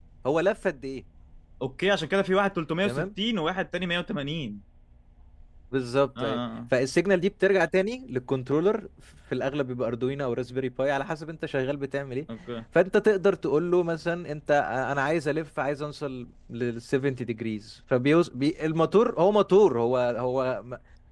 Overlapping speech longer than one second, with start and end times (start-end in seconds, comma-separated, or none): none